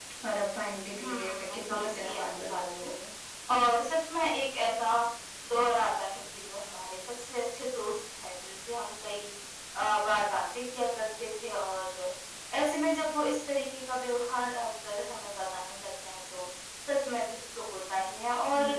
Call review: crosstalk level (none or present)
present